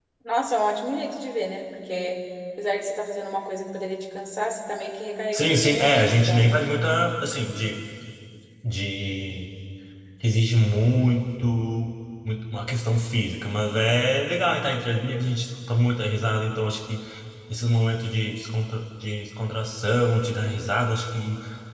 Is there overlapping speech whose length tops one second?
Yes, from 5.3 s

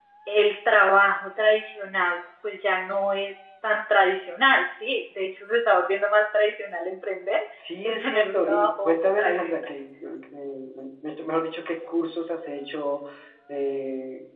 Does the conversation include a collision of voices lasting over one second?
Yes, from 7.8 s

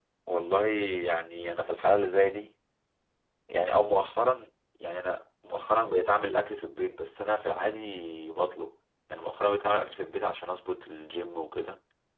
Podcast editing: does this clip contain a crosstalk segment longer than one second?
No

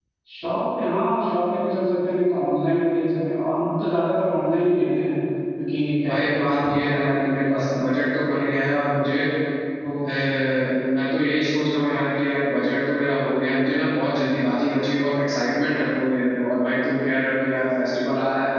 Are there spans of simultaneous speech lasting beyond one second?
Yes, from 6.0 s

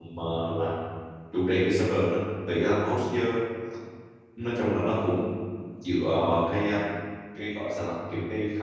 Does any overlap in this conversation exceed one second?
No

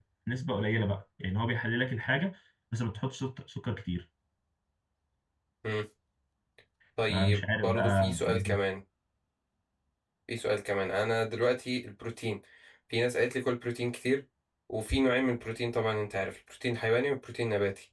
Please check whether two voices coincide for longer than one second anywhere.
Yes, from 7.1 s

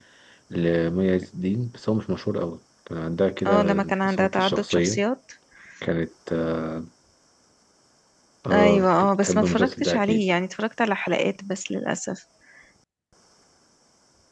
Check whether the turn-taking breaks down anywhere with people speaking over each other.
Yes, from 3.5 s

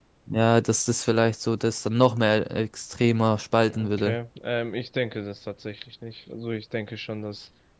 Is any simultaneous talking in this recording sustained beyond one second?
No

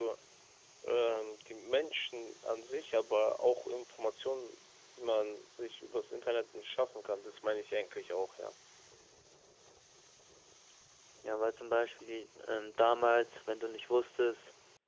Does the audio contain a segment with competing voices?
No

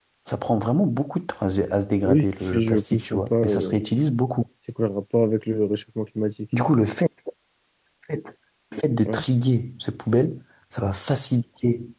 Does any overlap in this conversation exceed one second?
Yes, from 2.0 s

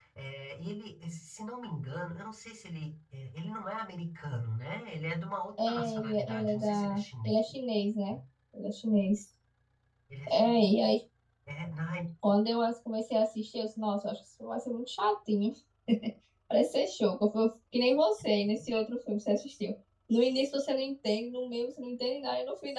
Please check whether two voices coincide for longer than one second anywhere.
Yes, from 5.6 s

